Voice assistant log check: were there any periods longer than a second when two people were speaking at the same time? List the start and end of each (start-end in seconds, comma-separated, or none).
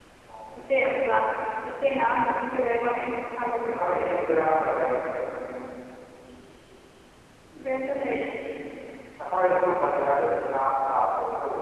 none